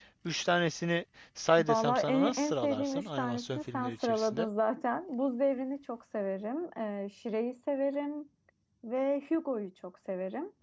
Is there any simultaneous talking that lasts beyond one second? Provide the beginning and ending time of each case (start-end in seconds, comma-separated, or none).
1.6-4.5